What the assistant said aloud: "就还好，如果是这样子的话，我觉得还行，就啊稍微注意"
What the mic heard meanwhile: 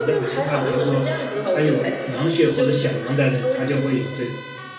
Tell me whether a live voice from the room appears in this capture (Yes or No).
Yes